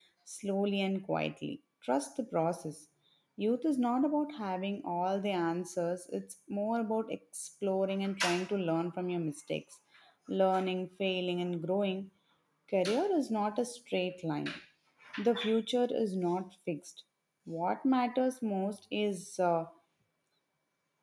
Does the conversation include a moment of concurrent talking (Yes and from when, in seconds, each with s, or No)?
No